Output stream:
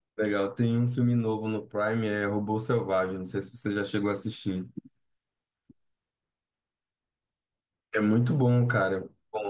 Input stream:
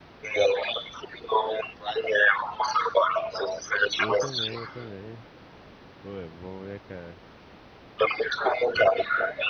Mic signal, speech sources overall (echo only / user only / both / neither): both